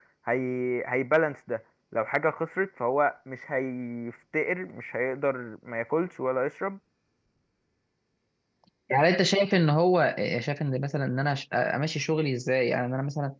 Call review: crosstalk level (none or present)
none